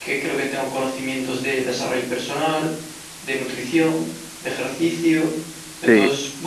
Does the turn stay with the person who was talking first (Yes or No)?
Yes